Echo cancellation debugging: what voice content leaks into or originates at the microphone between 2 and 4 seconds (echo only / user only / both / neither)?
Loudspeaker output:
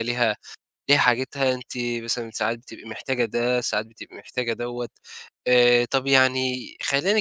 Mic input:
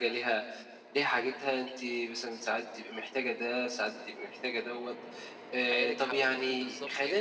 echo only